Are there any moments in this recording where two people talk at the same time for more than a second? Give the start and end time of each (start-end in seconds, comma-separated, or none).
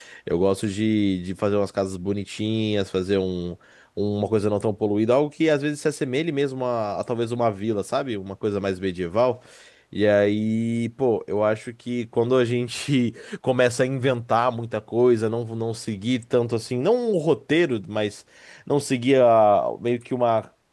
none